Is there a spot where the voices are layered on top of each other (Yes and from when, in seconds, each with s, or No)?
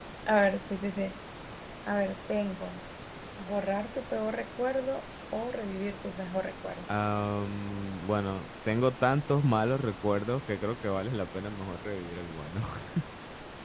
No